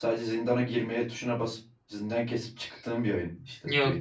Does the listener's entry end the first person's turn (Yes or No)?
Yes